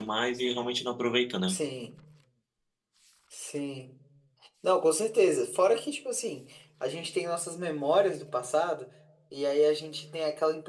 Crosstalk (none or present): none